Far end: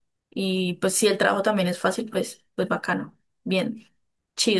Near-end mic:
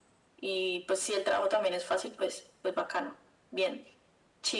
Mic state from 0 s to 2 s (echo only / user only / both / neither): echo only